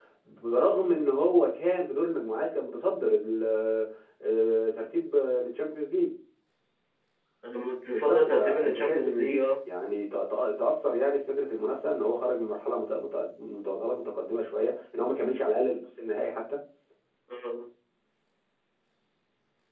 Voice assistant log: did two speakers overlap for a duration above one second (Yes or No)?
Yes